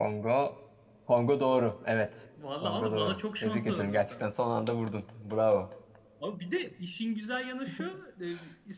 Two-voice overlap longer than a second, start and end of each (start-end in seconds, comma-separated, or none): 2.6-4.2